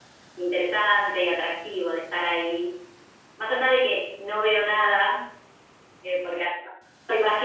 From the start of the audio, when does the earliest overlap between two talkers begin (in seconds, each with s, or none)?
none